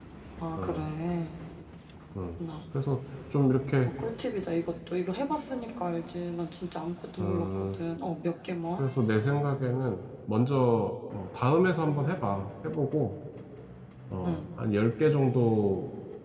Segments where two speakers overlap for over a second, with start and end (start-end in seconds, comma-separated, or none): none